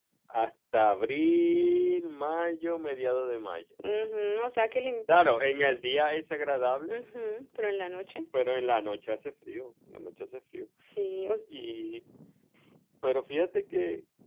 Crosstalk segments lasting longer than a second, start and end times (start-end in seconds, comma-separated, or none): none